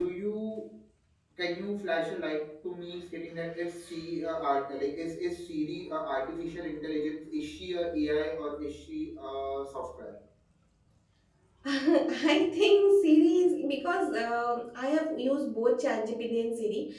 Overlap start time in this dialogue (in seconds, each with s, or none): none